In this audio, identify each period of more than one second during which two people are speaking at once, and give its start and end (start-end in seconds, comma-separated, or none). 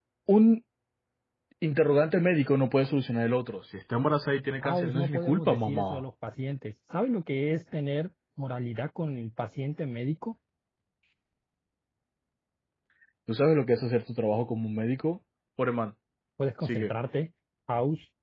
4.6-6.0